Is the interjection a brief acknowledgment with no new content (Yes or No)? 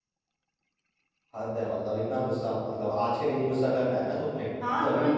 No